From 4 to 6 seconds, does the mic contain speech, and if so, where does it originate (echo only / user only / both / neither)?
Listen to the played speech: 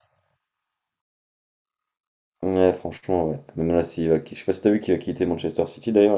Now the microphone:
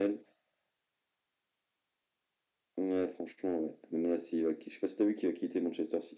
echo only